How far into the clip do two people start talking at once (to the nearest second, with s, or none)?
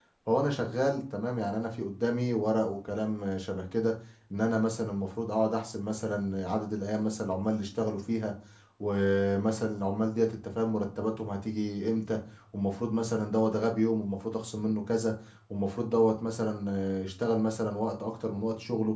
none